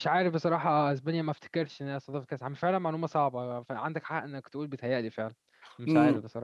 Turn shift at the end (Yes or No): Yes